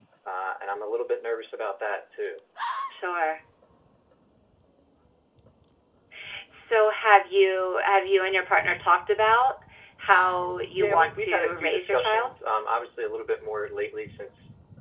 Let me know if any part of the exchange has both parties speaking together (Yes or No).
Yes